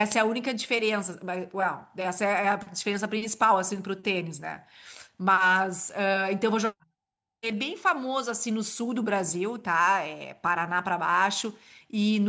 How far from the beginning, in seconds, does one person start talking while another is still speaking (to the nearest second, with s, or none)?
none